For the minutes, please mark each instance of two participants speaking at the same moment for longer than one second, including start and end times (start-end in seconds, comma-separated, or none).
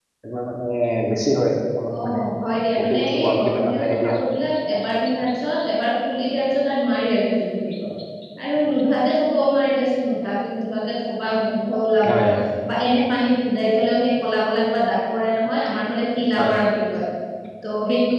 2.8-4.3